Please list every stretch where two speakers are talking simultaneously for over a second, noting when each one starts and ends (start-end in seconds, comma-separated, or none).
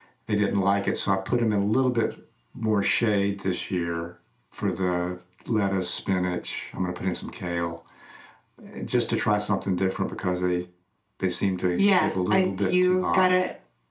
11.8-13.3